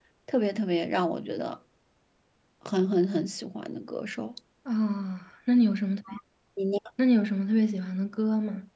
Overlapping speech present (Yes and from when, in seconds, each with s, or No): No